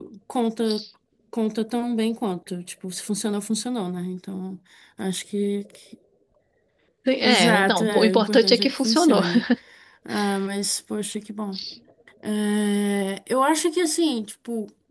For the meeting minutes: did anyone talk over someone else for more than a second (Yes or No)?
Yes